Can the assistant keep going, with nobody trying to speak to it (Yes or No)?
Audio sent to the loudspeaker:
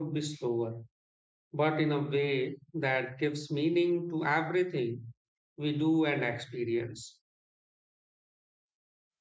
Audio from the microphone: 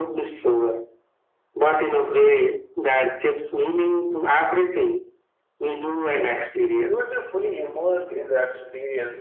No